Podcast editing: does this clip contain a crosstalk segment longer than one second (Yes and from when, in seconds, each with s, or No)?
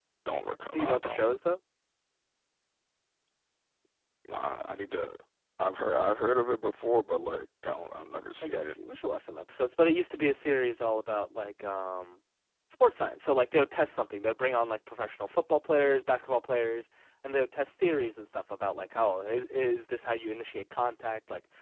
No